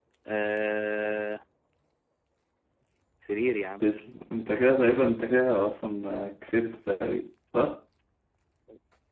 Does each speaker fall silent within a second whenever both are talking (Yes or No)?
Yes